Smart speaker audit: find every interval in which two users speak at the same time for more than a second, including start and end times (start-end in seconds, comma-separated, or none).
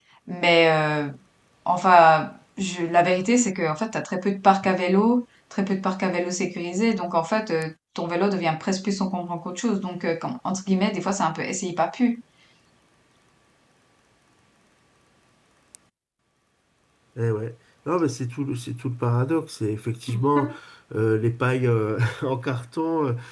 none